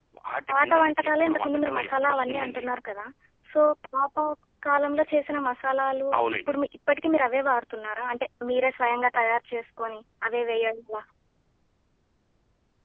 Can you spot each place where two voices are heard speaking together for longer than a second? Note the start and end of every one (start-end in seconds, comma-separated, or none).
0.5-2.6